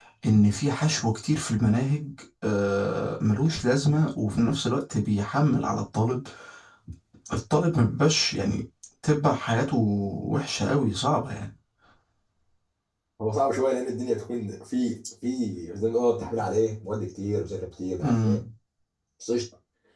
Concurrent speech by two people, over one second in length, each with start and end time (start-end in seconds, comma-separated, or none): none